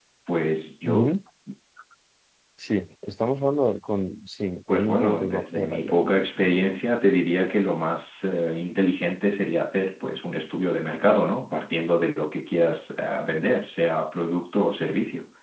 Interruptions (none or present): present